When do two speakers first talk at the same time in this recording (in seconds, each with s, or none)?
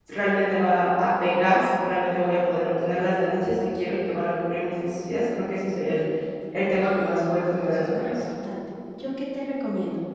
6.6 s